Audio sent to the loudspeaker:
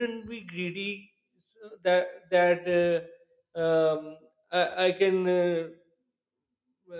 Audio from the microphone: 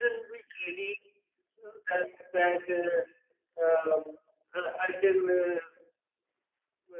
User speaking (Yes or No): No